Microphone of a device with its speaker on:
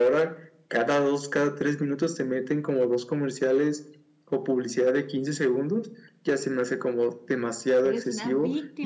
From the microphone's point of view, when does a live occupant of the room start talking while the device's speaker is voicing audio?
8 s

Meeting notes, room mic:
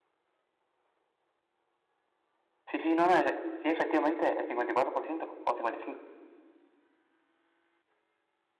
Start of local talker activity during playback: 3 s

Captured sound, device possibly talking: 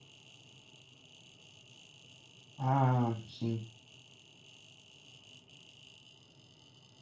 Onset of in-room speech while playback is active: 3 s

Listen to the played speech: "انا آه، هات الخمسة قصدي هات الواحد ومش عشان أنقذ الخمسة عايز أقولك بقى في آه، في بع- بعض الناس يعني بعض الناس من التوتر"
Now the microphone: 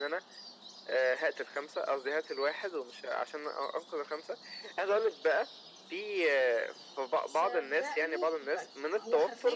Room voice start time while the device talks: 7 s

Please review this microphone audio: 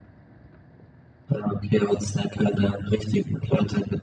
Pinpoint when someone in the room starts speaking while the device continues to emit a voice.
none

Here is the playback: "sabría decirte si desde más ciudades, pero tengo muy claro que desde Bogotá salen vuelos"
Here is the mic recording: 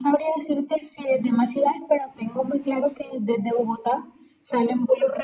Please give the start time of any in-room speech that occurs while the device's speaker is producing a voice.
none

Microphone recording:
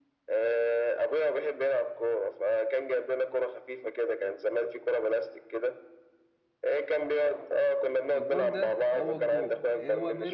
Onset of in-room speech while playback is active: 8 s

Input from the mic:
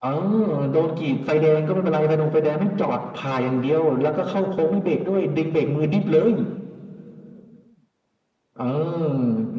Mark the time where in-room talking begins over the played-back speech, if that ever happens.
none

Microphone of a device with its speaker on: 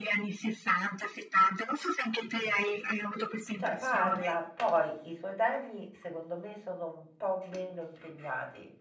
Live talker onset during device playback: 4 s

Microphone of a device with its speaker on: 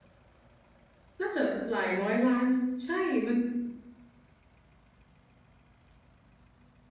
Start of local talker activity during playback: 1 s

